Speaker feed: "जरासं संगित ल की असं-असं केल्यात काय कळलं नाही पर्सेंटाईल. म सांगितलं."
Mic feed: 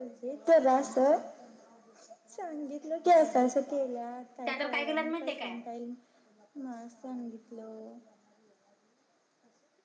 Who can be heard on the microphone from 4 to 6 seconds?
both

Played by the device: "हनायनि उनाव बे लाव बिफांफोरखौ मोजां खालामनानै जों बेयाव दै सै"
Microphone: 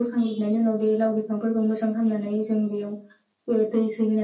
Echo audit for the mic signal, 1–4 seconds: echo only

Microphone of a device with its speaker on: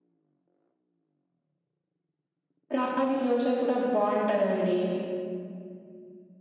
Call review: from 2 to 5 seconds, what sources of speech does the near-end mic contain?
user only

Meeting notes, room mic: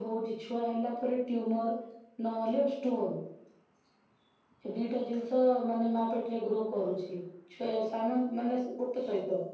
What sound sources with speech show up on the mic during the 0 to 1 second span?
echo only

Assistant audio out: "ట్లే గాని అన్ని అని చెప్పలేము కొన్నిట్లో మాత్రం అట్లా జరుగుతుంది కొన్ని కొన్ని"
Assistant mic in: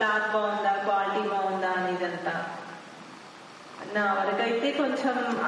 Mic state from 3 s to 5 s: user only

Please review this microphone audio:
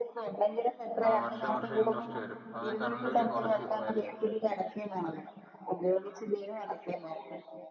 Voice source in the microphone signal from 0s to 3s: both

